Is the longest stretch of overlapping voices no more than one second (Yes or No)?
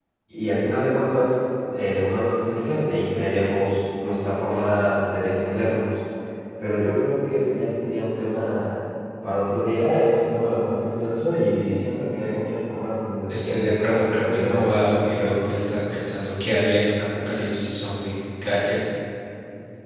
No